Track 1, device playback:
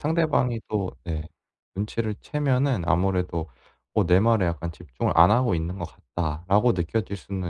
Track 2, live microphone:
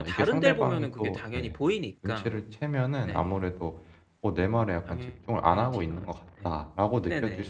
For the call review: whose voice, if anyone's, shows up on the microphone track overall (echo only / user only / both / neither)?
both